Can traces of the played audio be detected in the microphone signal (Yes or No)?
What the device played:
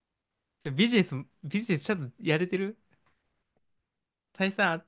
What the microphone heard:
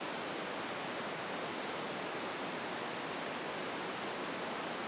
No